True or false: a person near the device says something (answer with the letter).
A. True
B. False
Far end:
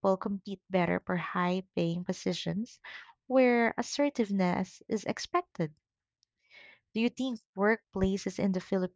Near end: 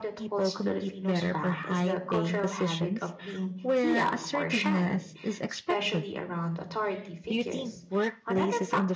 A